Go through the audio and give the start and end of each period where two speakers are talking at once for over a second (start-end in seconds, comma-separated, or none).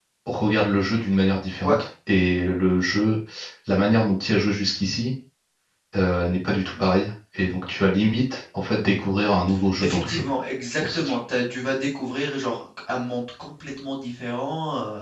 none